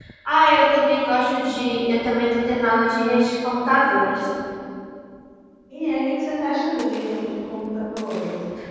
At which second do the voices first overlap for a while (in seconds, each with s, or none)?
none